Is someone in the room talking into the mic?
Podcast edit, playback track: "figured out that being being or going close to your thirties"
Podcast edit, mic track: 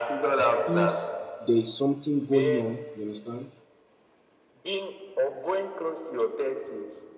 Yes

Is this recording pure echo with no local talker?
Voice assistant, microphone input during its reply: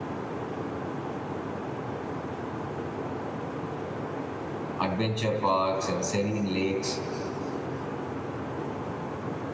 No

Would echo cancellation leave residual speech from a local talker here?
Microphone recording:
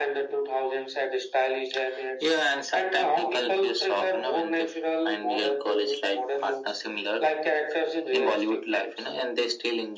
No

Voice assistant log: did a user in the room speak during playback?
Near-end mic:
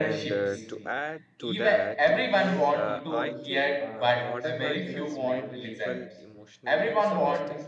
Yes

